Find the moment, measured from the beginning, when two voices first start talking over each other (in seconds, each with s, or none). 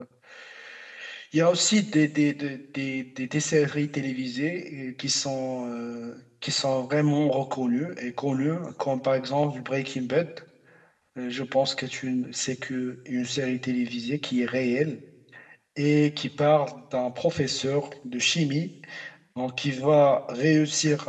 none